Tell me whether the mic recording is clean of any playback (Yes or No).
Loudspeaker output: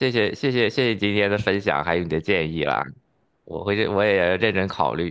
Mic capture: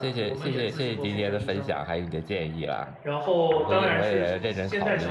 No